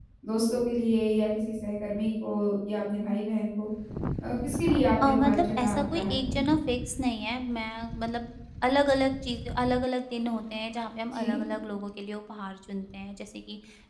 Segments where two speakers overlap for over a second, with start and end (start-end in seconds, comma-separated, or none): 5.0-6.4